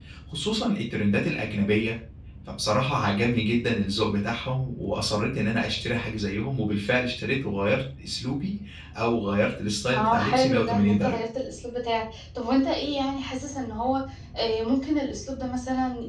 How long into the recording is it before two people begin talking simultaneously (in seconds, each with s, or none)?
9.9 s